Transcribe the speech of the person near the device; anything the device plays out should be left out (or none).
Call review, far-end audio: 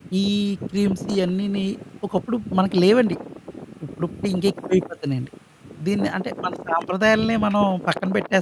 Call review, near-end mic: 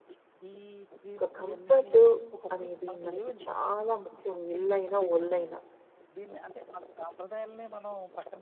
ఒక కంఫర్టు అనేది మనకి చాలా ముఖ్యం. ఇల్లైనా, ఒళ్ళైనా.